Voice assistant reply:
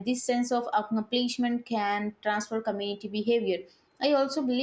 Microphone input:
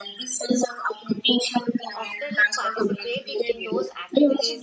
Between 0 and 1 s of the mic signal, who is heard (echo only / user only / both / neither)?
echo only